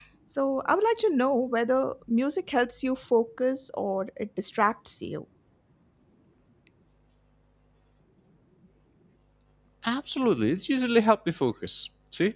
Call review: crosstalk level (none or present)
none